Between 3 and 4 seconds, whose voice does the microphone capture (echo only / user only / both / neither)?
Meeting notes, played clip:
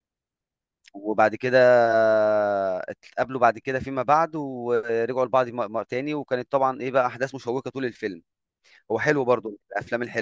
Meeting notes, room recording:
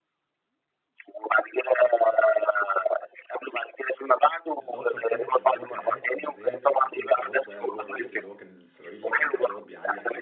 echo only